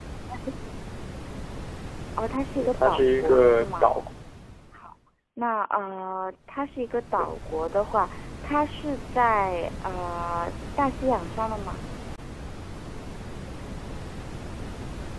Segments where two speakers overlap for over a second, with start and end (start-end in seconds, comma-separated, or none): 2.6-3.9